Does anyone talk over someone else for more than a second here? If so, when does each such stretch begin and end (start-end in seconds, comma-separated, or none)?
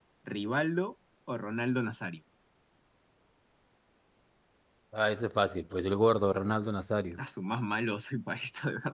none